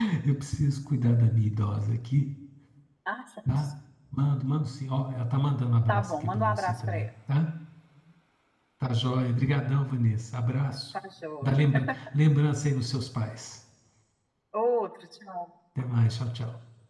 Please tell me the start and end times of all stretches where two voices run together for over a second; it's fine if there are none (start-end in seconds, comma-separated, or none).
5.9-7.1